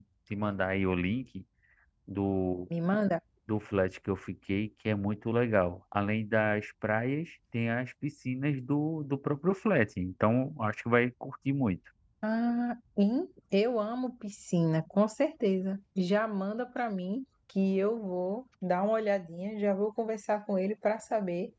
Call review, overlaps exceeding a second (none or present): none